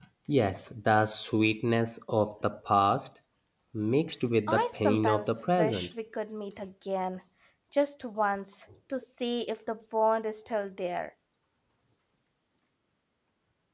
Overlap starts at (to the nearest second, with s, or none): 4 s